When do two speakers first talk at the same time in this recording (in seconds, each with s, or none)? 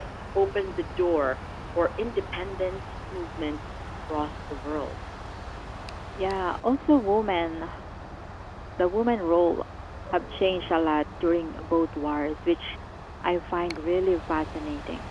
none